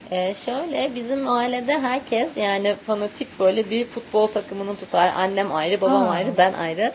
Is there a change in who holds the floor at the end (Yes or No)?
No